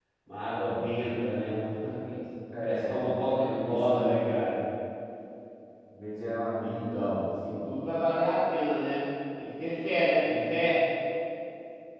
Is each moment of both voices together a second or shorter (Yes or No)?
No